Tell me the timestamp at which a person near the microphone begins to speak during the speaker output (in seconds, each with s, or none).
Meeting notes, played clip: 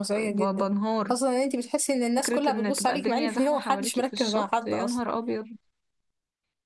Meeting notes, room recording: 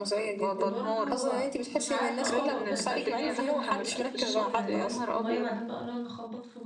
0.5 s